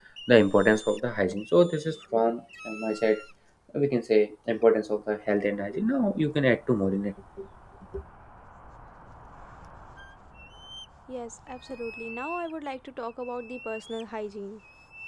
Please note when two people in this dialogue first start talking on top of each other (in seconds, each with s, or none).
none